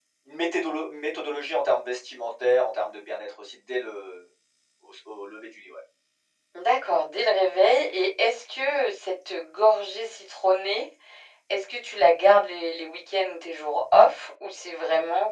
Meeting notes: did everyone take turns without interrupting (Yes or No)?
Yes